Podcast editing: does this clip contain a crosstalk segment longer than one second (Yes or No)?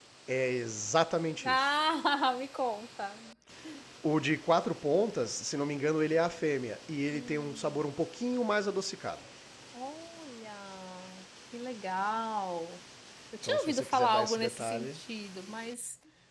Yes